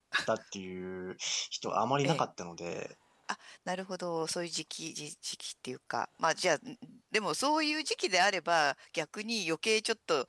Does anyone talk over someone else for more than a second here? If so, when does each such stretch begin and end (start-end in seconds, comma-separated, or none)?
none